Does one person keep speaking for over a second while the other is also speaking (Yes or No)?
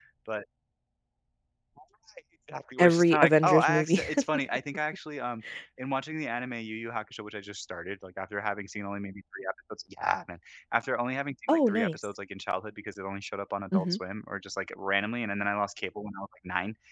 Yes